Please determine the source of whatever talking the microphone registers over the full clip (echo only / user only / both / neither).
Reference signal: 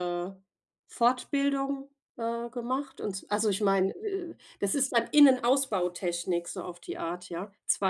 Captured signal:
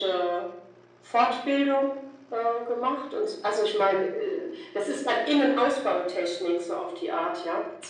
echo only